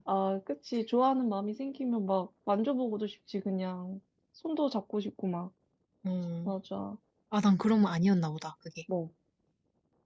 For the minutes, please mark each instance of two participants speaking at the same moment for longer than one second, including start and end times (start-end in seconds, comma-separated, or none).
none